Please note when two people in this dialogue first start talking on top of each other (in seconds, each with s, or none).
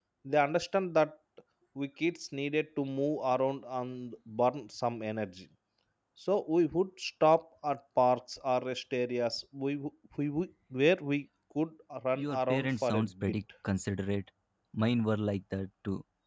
12.2 s